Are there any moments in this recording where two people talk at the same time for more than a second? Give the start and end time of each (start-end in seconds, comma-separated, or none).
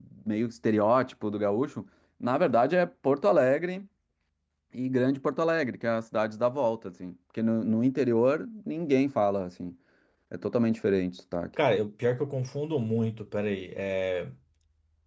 none